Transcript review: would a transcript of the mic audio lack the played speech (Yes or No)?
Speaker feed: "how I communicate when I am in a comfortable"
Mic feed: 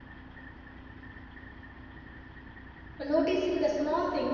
Yes